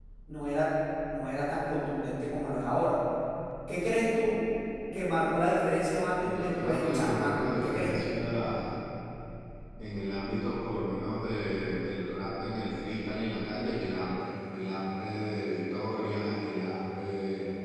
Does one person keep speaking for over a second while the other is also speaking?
Yes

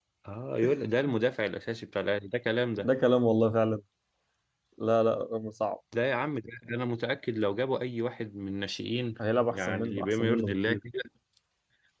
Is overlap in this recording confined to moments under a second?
No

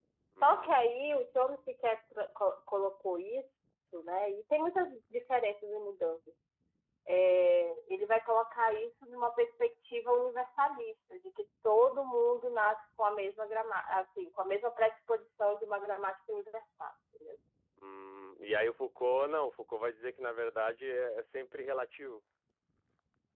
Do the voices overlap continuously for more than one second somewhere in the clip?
No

